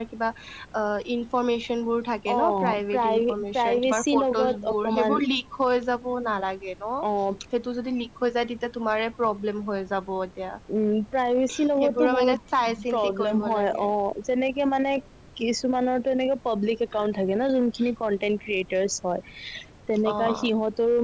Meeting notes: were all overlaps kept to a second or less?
No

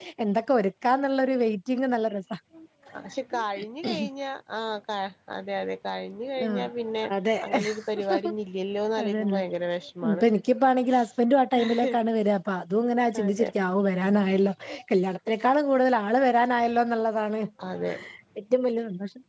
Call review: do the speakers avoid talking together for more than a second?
Yes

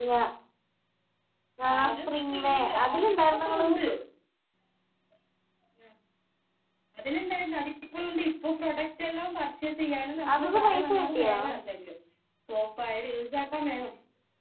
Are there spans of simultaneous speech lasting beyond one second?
Yes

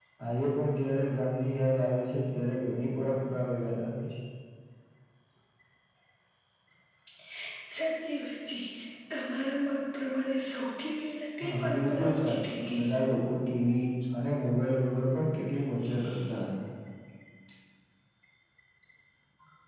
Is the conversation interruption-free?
No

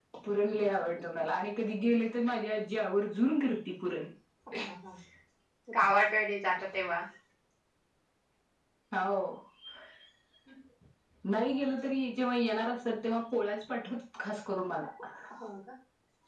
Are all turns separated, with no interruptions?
Yes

